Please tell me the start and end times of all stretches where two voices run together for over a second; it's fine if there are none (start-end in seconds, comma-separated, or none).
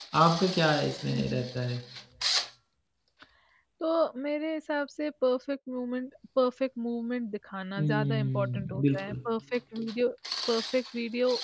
7.8-9.2